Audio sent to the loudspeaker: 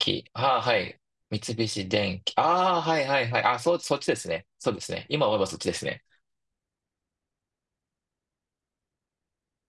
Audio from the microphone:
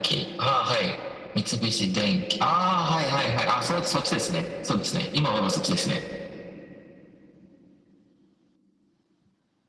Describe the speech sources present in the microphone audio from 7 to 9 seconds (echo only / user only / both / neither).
neither